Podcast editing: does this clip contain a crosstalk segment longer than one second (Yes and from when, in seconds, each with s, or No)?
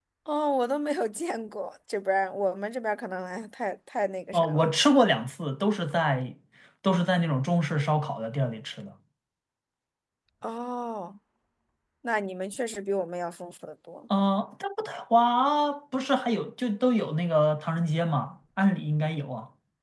No